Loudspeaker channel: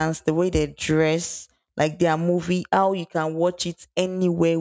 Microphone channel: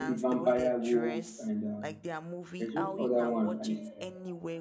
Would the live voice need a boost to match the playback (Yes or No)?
No